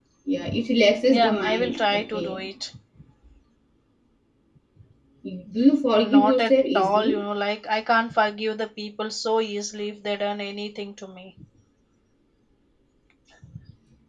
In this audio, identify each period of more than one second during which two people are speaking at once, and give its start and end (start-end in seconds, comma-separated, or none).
1.1-2.4, 6.0-7.2